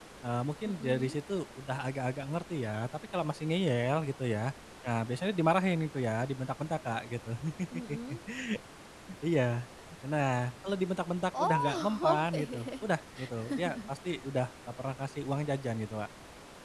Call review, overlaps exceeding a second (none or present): present